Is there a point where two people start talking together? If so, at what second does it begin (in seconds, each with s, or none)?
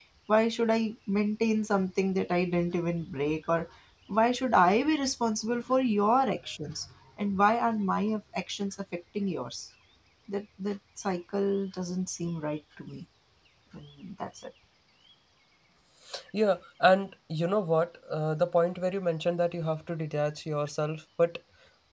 none